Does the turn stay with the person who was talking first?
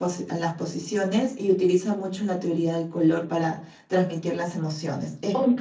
No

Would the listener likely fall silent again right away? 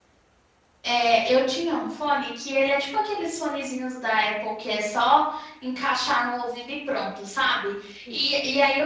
Yes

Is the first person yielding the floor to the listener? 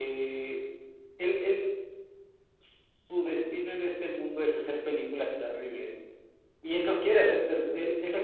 No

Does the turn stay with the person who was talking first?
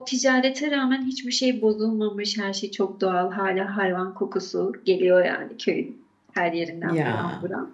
Yes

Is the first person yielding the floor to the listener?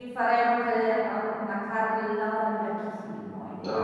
Yes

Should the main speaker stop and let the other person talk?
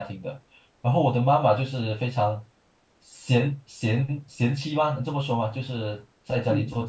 No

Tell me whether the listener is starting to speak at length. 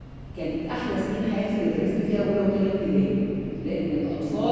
No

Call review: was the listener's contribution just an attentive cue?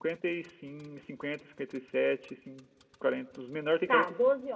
No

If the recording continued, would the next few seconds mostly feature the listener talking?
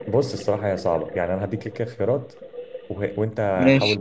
No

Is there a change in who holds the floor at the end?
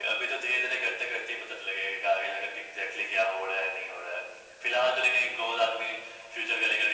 No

